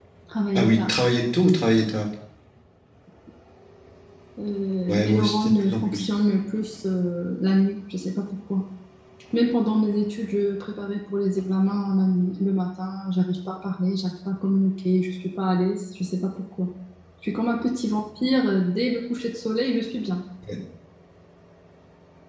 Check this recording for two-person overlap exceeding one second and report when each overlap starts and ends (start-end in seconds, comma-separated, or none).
4.9-6.1